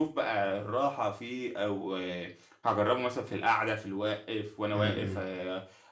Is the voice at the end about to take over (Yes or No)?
No